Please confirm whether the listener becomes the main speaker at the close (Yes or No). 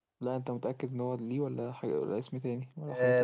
Yes